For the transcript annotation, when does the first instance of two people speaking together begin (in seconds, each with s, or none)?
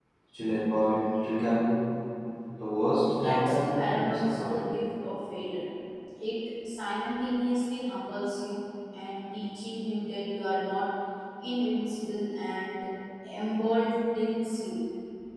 3.1 s